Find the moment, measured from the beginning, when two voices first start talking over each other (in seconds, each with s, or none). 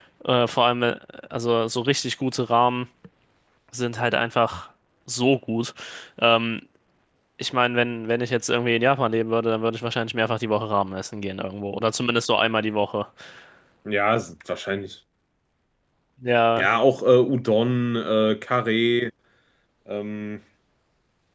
none